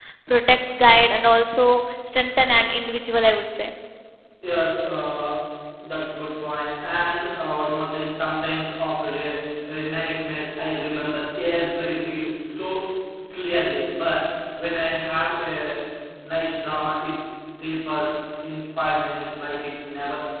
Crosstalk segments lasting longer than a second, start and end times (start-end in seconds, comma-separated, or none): none